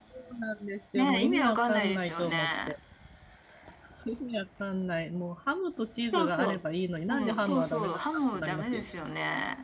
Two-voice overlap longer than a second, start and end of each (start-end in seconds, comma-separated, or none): 0.9-2.7, 7.1-8.9